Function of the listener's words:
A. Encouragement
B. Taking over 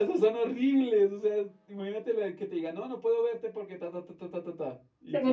A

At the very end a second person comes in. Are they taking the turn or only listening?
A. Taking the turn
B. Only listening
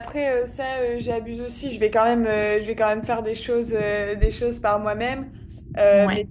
B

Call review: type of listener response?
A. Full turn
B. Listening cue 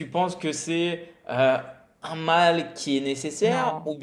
B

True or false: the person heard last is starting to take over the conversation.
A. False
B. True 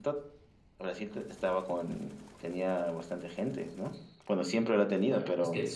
B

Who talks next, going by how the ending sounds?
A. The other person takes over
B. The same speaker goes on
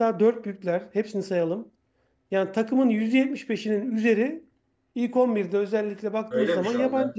A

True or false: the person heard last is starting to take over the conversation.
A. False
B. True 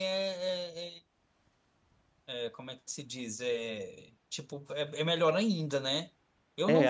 B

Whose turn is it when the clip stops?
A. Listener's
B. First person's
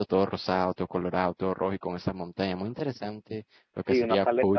A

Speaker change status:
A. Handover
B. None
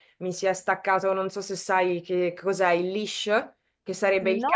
B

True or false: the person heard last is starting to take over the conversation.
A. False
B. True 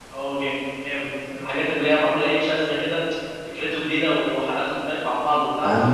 B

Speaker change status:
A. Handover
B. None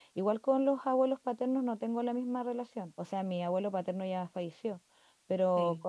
B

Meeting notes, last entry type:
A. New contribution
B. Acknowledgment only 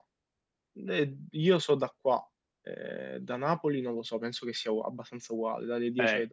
A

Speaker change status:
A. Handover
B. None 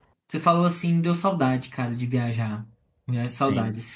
A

